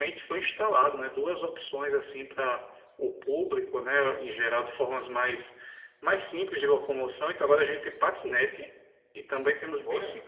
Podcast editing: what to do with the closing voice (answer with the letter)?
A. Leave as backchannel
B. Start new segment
A